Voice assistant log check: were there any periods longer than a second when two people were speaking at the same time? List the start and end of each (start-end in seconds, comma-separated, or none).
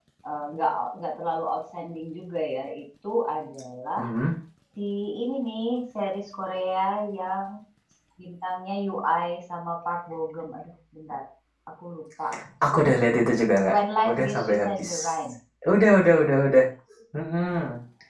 13.7-15.1